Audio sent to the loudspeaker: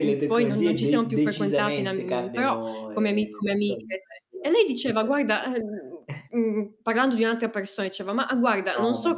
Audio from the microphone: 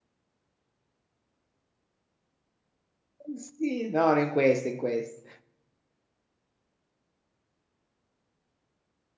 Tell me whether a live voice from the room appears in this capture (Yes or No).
Yes